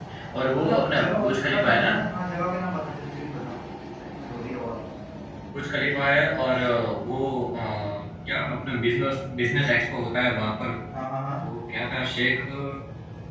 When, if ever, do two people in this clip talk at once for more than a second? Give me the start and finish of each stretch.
0.6-1.9

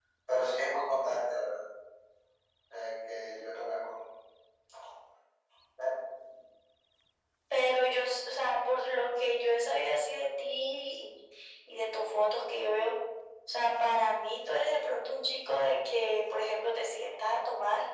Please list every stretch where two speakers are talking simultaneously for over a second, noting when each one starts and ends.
none

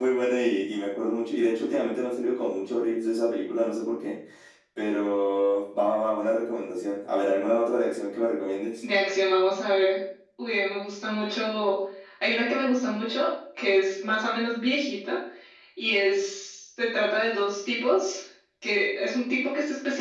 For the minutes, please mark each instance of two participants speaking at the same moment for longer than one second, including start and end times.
none

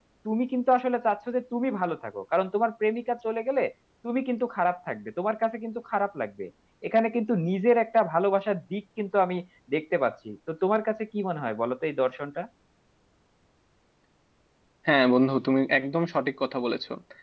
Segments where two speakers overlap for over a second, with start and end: none

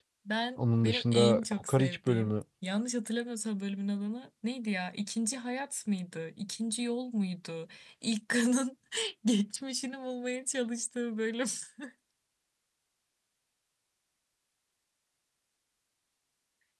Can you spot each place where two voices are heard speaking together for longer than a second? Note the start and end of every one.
0.6-2.3

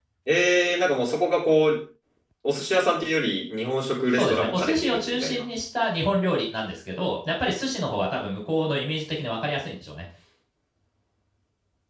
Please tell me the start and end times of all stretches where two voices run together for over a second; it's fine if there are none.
4.1-5.5

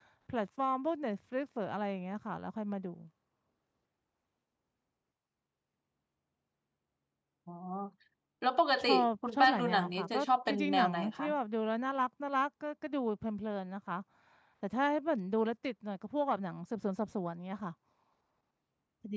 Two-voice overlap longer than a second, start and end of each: 8.8-11.3

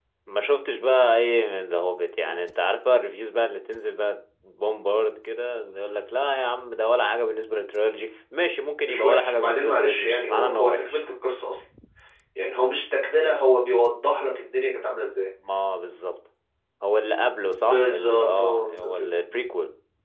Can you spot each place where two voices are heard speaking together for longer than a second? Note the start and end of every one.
8.8-11.0, 17.6-19.1

